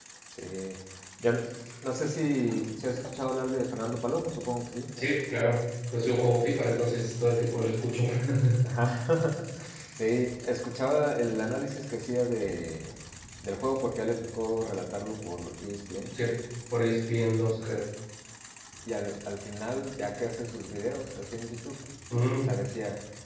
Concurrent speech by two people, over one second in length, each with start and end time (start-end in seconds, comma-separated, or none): none